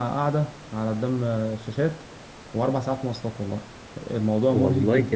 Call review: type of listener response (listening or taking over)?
taking over